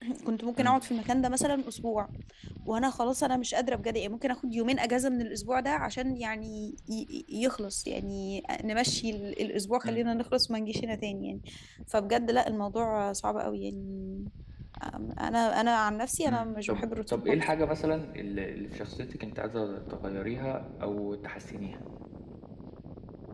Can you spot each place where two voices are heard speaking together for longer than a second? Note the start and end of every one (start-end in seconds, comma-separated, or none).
16.3-17.5